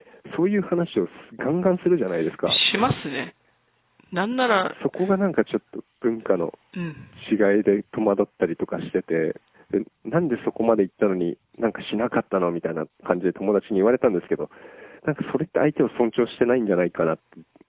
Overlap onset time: none

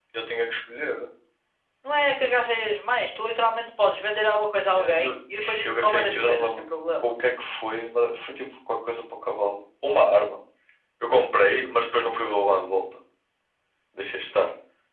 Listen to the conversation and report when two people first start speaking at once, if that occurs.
5 s

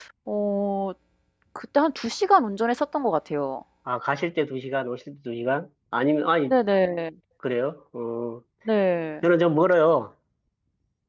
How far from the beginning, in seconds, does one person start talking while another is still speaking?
none

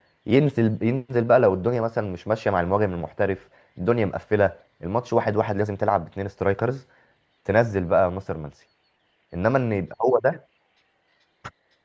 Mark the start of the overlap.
none

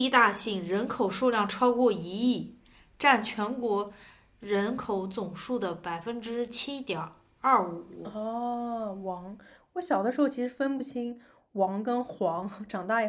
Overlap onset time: none

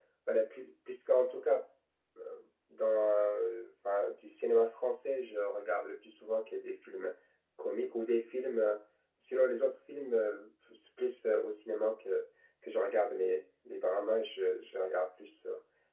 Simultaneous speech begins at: none

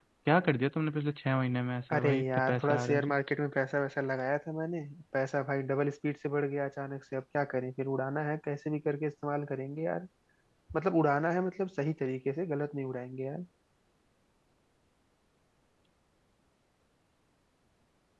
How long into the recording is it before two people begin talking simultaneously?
2 s

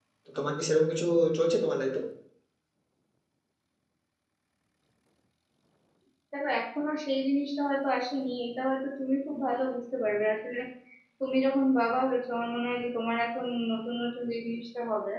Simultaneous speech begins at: none

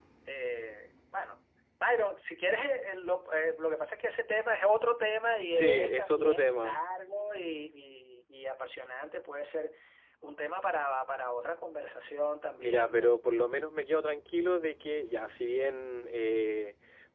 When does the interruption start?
5 s

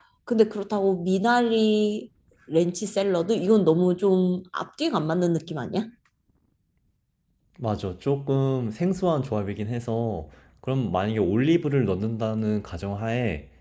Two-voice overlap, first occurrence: none

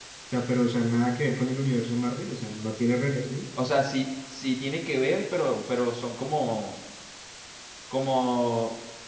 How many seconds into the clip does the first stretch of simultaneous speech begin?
none

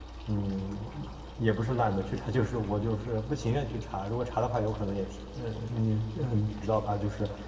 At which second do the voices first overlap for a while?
none

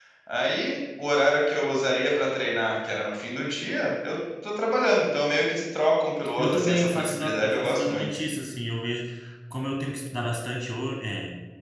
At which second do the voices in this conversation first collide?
6 s

